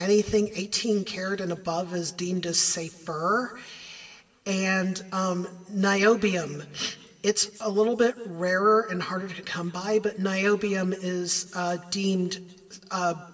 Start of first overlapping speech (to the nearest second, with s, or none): none